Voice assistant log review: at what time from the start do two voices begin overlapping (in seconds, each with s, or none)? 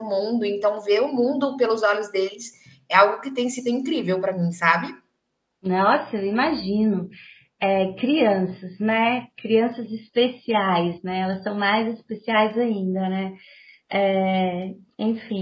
none